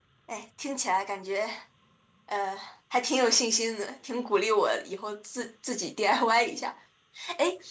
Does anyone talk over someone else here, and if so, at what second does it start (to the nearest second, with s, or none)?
none